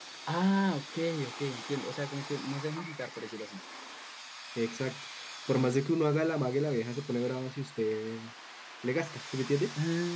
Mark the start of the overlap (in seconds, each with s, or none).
none